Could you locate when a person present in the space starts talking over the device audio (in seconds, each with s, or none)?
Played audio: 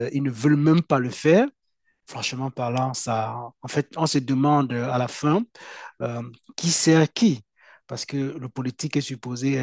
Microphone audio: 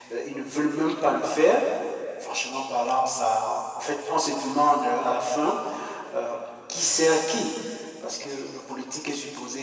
none